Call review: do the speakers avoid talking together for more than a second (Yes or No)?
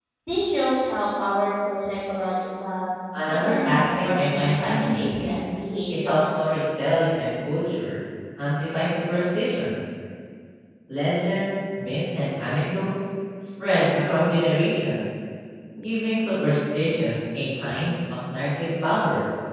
No